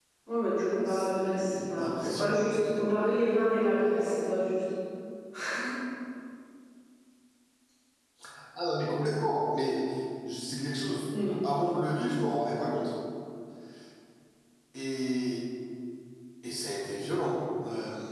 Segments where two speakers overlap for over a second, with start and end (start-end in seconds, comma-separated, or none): 0.9-2.4